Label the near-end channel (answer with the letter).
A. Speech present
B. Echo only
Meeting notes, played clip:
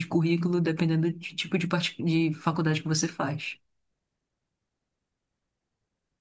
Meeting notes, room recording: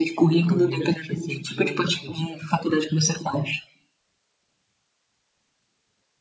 A